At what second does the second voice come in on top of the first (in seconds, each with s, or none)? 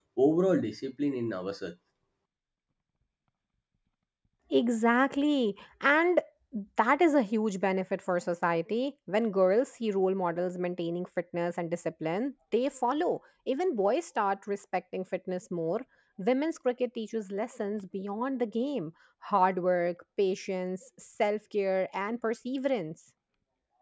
none